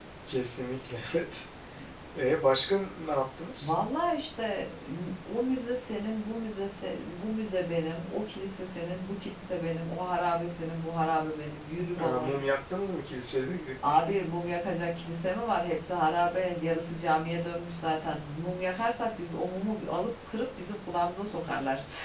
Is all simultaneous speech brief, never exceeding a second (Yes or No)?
Yes